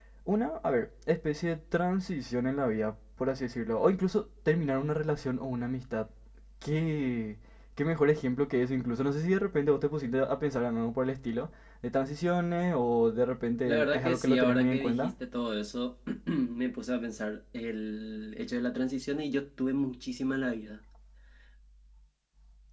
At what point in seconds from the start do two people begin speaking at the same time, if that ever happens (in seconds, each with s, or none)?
13.7 s